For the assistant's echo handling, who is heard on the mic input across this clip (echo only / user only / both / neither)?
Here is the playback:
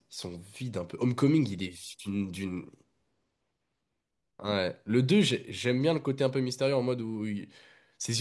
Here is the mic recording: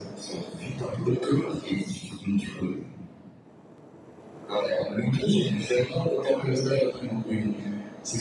echo only